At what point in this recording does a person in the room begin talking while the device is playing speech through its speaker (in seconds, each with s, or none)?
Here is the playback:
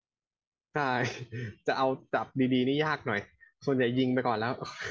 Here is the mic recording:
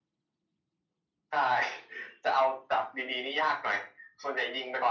none